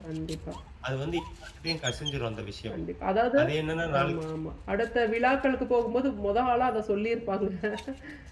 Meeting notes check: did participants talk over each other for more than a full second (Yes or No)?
No